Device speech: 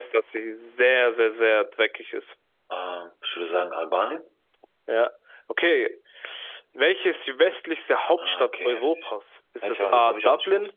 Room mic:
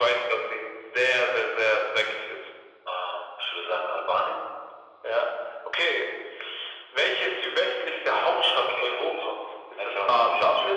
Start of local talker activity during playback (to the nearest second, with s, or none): none